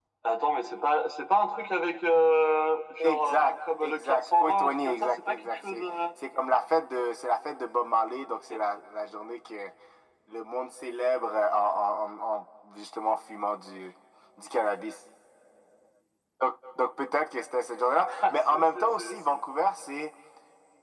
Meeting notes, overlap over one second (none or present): present